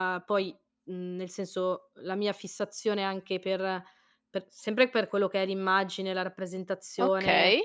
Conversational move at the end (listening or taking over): listening